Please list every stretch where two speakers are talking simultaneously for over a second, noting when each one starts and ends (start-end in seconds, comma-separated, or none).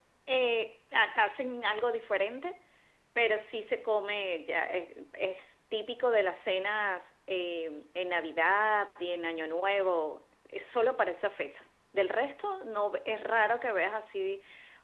none